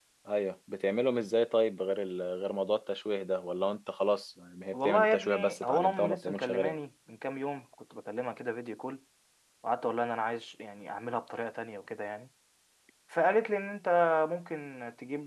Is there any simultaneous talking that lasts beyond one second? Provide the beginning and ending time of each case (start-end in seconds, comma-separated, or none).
4.7-6.8